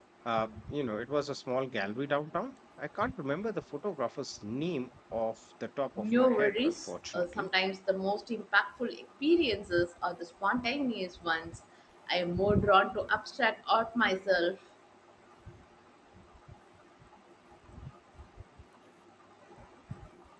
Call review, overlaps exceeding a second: present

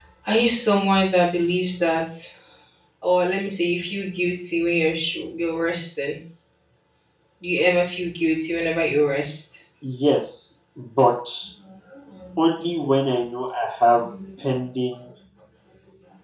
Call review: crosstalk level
none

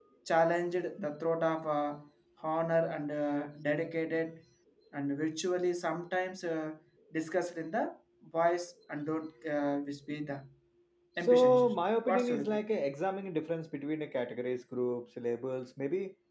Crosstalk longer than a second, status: present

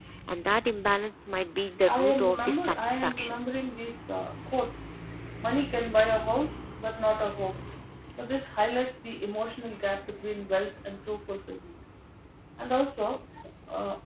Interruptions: present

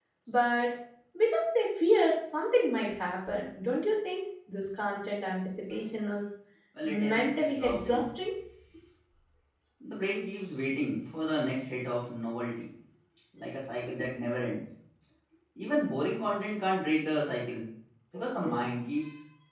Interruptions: present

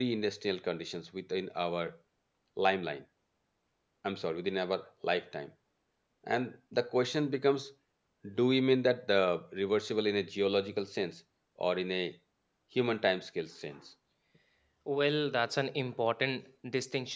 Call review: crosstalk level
none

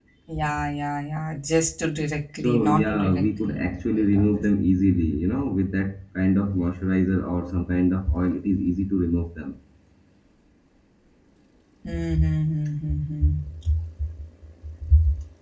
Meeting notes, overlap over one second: present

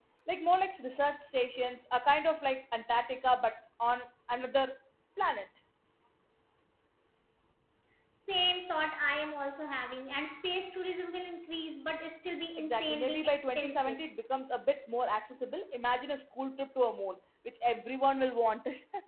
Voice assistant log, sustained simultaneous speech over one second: present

